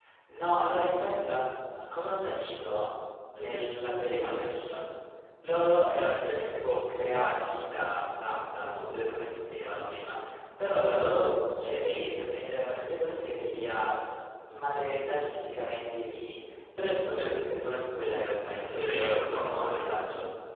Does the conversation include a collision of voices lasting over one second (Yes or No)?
Yes